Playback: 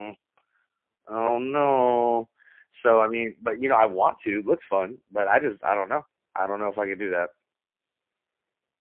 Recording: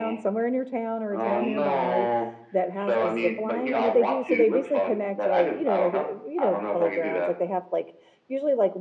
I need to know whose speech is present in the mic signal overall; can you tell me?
both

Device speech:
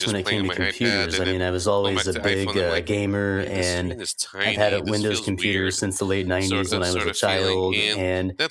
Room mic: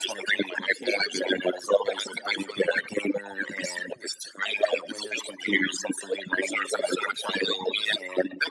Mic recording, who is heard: echo only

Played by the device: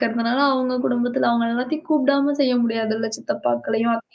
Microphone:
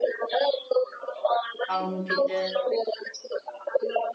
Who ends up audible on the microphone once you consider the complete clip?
both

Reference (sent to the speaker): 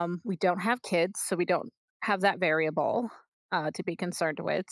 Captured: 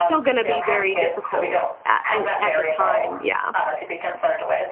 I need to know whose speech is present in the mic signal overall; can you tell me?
both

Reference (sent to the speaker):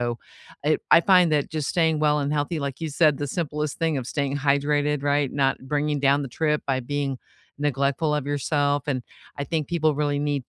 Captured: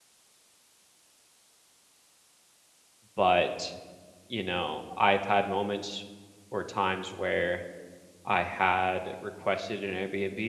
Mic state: user only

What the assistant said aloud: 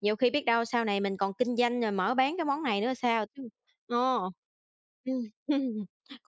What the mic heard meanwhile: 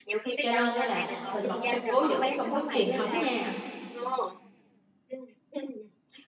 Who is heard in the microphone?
both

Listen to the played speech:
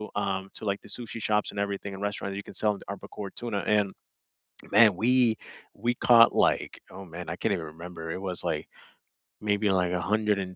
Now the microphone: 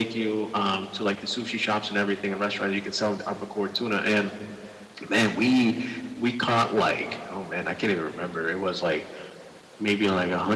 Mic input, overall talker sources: echo only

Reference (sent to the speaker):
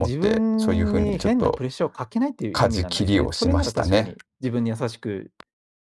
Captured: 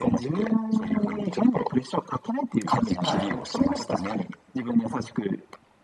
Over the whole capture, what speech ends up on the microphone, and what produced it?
both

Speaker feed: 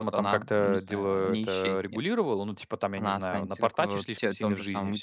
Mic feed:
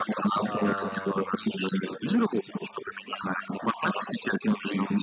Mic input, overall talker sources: both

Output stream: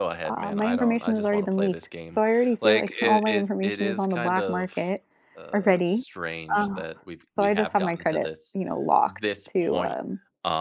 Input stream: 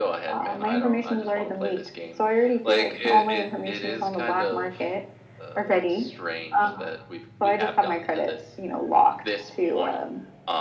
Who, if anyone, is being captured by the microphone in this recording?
echo only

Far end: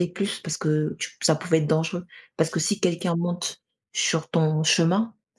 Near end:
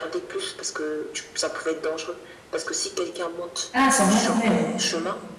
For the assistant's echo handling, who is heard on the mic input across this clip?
both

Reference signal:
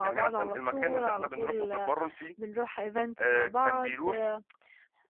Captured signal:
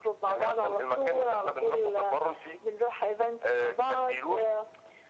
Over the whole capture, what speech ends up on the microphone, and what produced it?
echo only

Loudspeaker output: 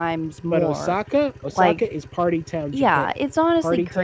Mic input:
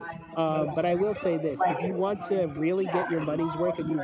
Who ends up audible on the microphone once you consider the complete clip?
both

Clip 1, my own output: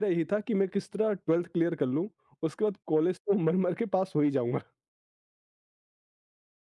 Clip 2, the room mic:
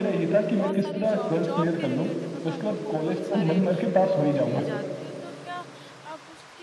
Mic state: both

